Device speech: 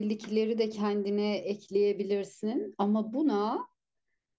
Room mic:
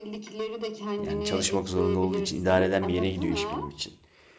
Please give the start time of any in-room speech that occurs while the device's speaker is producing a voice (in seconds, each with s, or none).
1.0 s